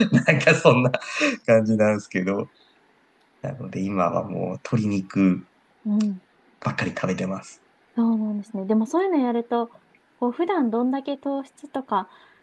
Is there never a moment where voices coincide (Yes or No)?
Yes